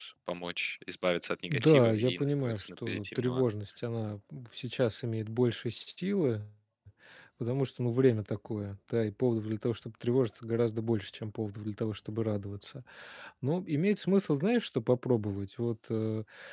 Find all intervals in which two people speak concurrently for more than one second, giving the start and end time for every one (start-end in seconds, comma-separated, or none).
1.5-3.4